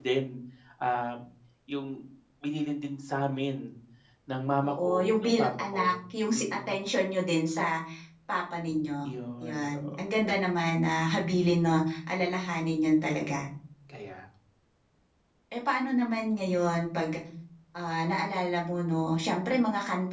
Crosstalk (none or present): present